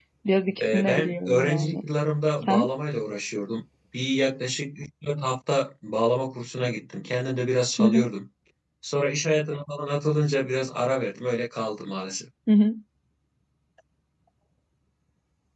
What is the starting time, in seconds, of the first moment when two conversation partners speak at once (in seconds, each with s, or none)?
0.6 s